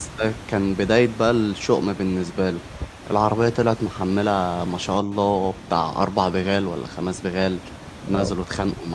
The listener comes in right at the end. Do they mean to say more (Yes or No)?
No